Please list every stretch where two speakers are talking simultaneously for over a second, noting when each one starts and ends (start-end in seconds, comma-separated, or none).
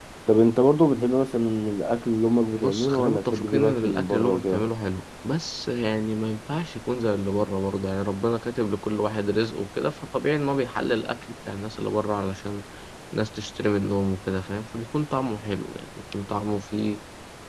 2.5-4.6